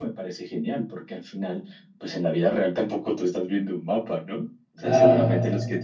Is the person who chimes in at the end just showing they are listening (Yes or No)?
Yes